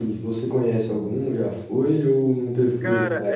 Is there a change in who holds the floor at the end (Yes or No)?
Yes